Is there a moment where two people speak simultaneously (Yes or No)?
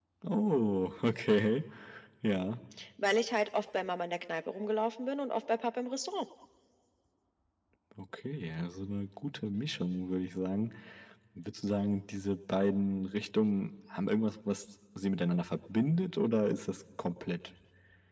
No